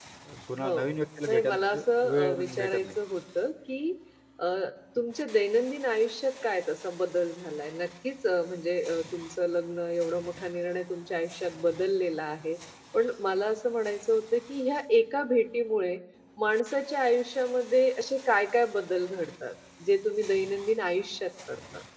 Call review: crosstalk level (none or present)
present